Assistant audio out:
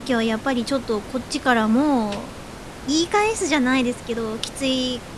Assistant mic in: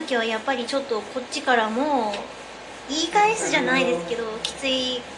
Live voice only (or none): 確かにあの、